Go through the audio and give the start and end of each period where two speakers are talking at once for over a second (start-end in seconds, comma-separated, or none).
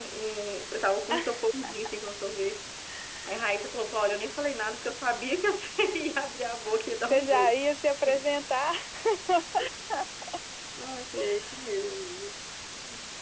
none